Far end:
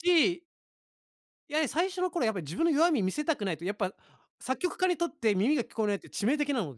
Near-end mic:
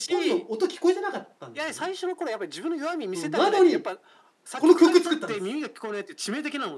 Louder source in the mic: user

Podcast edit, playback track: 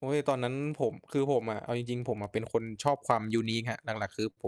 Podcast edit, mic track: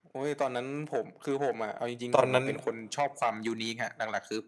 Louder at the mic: user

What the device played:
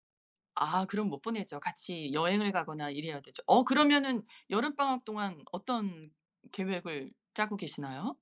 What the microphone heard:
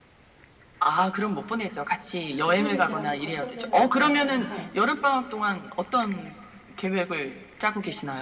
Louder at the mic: echo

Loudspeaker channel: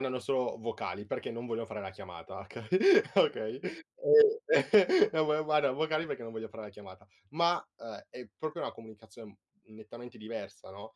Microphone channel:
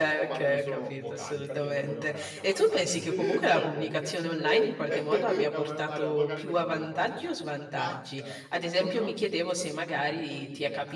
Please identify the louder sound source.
user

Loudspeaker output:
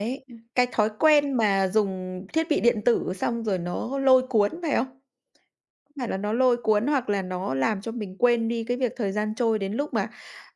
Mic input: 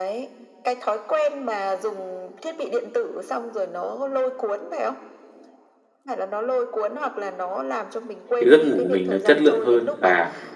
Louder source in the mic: user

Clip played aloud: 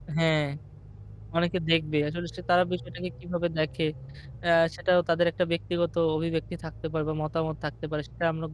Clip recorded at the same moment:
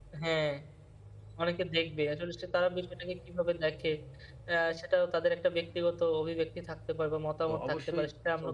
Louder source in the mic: echo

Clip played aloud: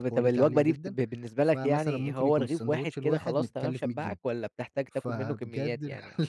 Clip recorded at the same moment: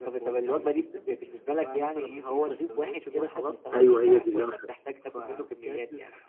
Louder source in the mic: user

